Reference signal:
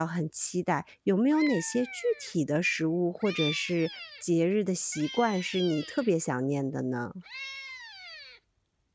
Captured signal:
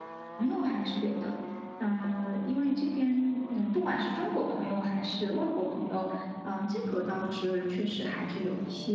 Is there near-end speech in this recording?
Yes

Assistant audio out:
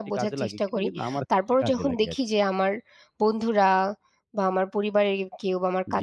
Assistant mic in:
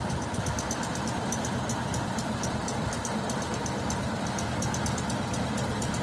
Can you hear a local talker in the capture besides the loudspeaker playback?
No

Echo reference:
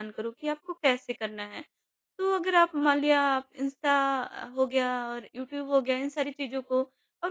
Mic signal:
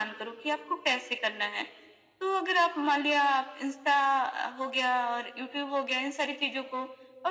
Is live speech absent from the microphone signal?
Yes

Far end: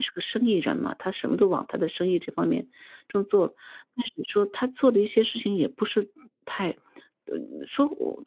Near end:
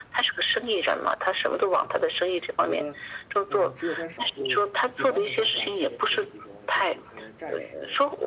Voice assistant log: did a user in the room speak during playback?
Yes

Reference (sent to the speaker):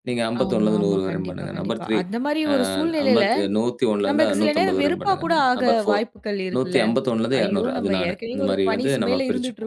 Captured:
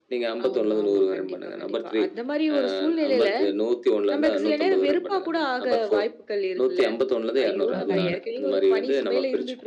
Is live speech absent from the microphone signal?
No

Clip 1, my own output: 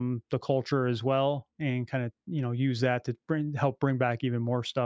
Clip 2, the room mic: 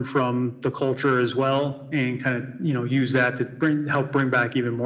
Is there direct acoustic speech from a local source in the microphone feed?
No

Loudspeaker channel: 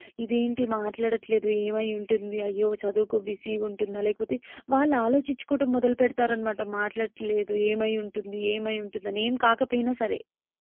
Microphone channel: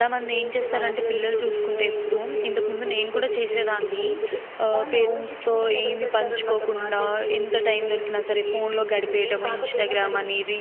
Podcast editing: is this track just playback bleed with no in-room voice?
No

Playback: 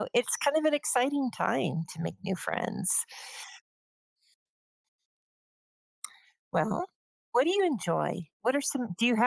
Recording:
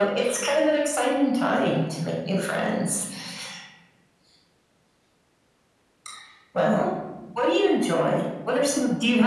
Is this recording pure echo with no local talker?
Yes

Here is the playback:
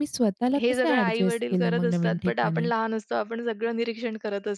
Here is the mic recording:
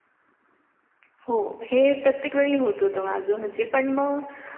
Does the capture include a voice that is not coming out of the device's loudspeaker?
Yes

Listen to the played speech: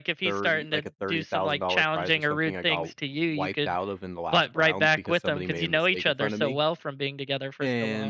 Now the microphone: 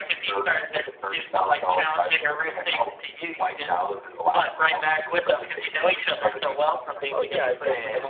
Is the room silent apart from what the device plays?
No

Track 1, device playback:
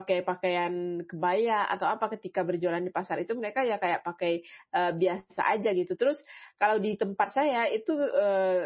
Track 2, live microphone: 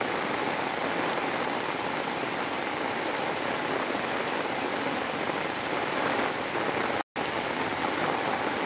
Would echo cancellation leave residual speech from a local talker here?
No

